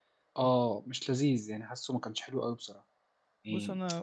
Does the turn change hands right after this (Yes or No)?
Yes